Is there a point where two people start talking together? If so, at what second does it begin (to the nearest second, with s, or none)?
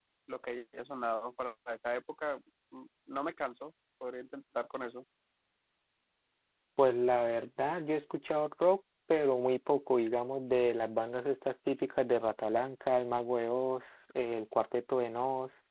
none